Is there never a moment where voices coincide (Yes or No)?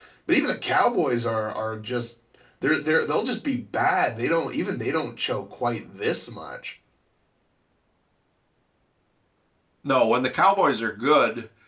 Yes